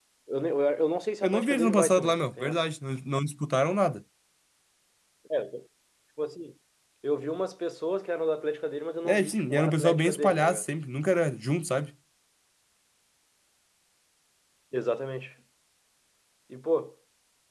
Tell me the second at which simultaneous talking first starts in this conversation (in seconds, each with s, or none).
1.2 s